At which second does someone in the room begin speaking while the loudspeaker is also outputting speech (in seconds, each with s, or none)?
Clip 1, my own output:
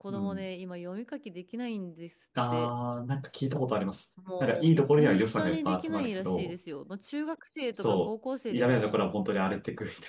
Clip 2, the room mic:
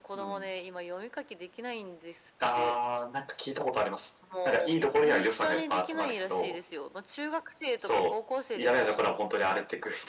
none